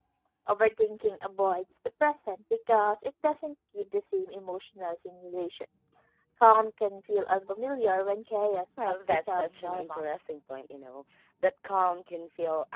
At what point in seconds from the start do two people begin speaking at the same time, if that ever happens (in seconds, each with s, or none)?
8.8 s